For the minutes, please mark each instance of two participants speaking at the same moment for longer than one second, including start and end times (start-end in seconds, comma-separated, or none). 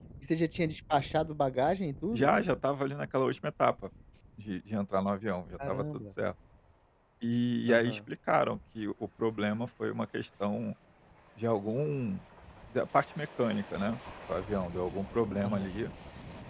none